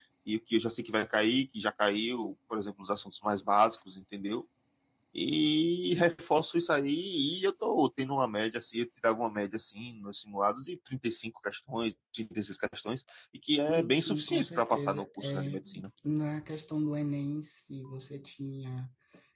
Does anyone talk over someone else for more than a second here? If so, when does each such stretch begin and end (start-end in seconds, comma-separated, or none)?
13.7-15.6